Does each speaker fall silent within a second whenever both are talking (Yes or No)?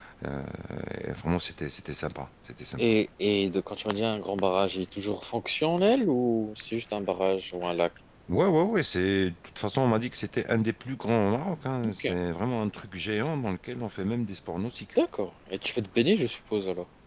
Yes